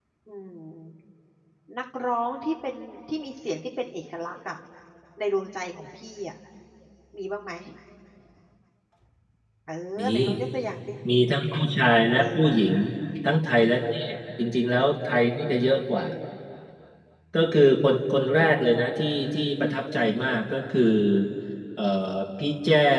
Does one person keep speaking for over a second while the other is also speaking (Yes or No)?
No